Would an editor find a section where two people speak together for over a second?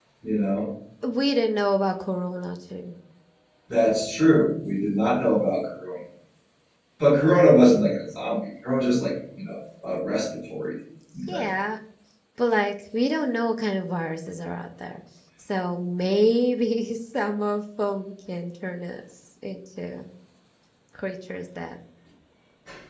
No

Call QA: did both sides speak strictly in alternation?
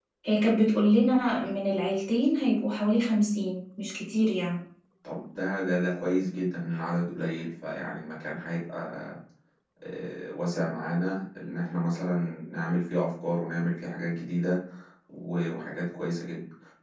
Yes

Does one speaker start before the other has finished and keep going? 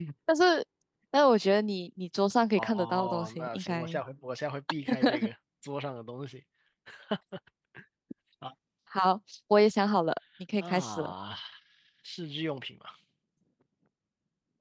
Yes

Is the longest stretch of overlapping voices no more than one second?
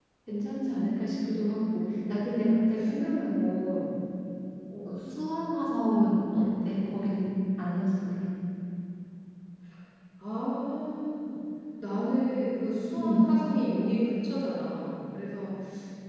Yes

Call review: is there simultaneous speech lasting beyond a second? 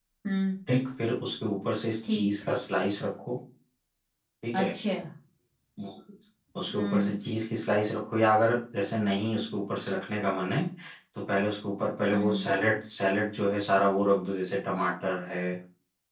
No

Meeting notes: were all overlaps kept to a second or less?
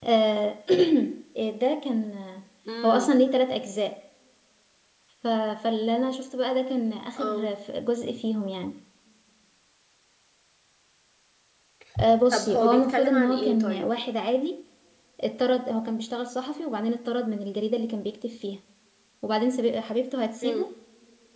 No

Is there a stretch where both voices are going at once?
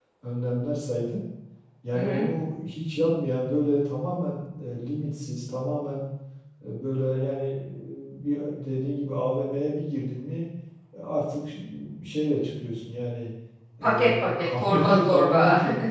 Yes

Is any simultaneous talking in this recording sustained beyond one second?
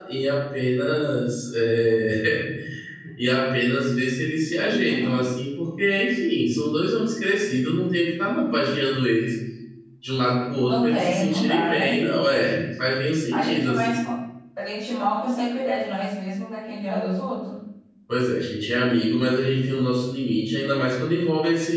Yes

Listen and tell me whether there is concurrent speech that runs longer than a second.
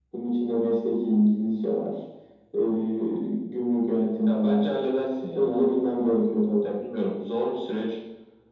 No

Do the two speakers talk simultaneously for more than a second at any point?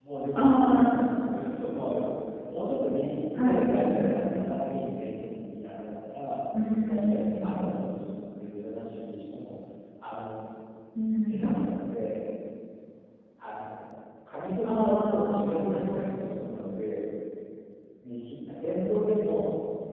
Yes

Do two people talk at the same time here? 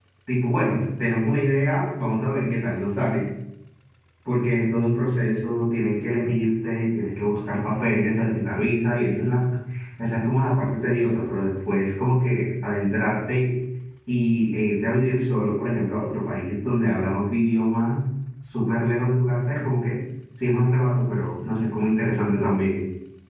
No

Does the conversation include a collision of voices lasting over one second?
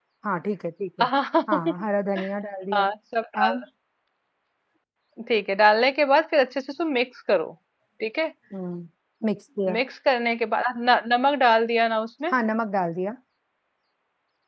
No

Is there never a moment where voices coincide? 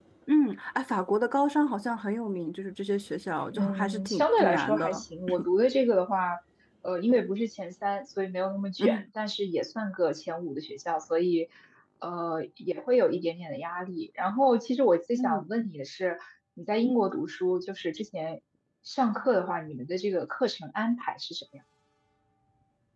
No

